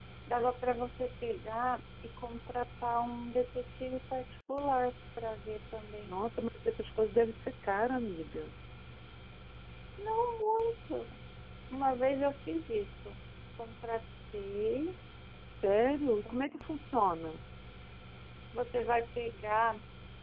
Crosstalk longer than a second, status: none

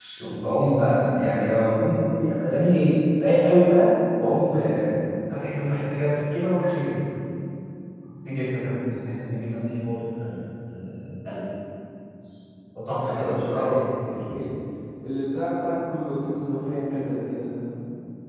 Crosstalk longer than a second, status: present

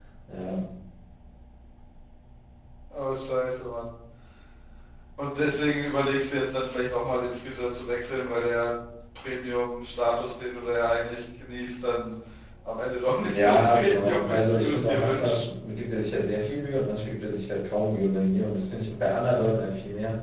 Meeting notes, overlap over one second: present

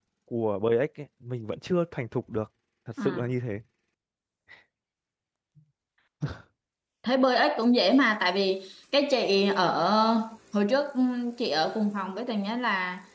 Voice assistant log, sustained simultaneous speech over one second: none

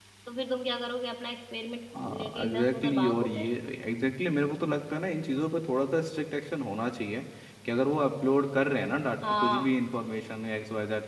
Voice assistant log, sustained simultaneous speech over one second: present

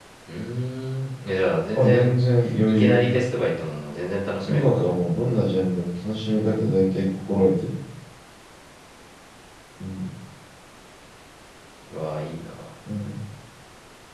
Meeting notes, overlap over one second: none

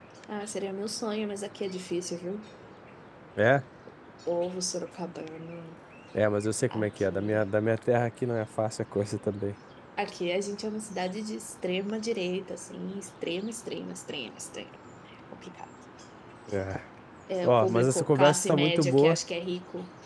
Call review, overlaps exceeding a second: present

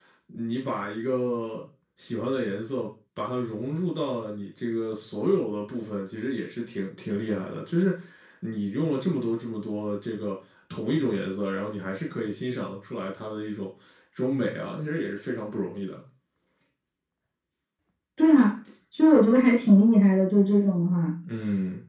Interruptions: none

